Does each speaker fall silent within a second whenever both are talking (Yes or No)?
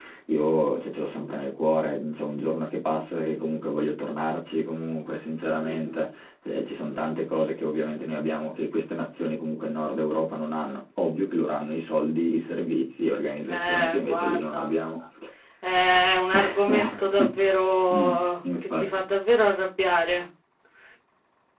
No